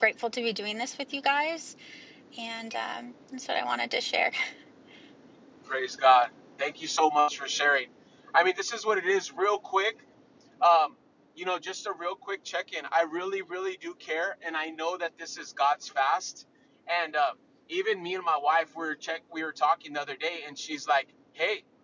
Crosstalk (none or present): none